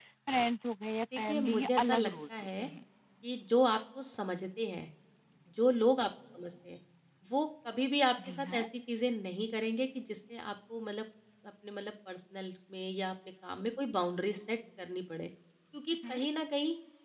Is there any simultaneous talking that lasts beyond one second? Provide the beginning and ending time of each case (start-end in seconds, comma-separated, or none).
1.2-2.7